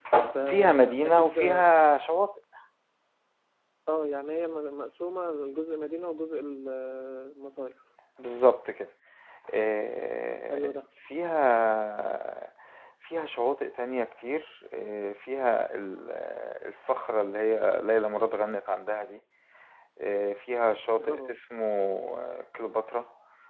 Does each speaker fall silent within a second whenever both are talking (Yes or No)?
No